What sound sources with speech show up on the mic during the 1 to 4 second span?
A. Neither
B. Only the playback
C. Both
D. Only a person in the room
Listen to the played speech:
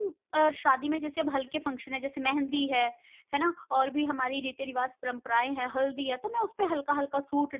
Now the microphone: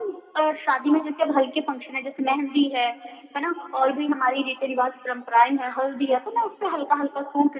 B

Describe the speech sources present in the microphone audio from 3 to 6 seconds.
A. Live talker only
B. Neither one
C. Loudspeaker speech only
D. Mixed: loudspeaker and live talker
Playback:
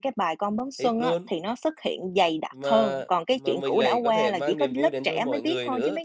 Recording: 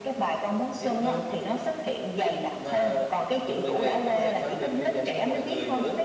C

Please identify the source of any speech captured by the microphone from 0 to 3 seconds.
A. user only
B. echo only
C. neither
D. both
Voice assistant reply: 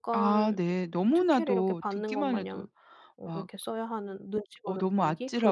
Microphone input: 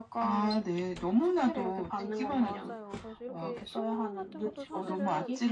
D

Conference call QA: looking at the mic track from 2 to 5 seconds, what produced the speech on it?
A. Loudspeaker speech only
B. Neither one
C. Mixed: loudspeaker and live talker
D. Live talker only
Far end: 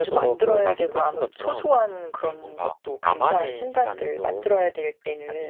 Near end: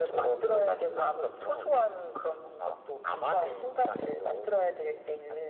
A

